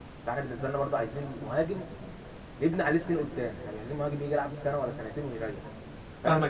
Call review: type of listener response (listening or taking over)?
taking over